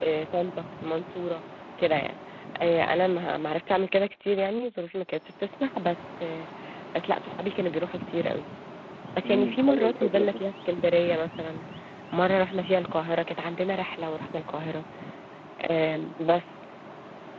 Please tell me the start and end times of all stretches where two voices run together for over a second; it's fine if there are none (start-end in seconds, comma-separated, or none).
9.2-10.4